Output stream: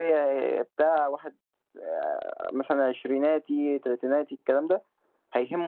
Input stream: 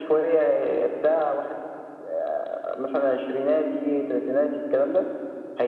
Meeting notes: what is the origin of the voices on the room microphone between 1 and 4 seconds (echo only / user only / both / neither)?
echo only